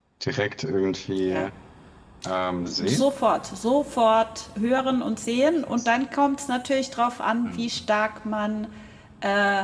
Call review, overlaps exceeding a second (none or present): none